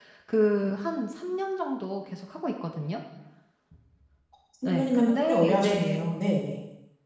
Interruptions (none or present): present